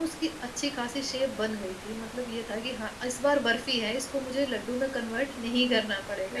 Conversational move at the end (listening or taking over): taking over